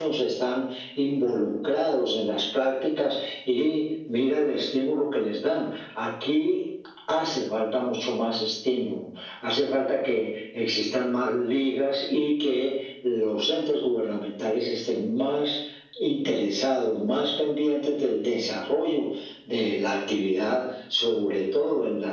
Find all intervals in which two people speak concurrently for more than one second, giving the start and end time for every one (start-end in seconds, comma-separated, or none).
none